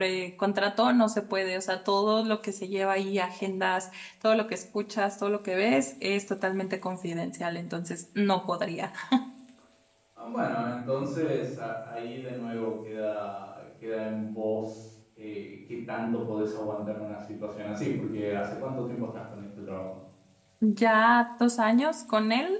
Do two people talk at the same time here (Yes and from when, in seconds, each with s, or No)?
No